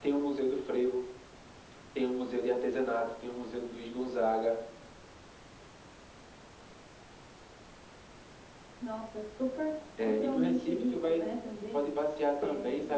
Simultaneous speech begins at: 10 s

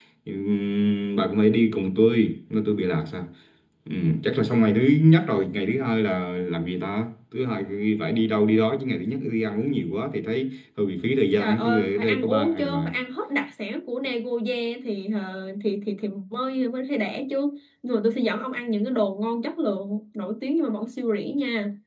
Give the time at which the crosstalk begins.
11 s

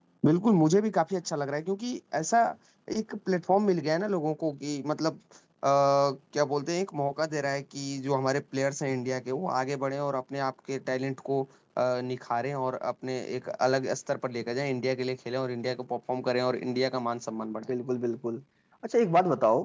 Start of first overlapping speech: none

